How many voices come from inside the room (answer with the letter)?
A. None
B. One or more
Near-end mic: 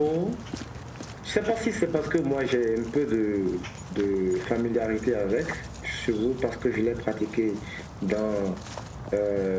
A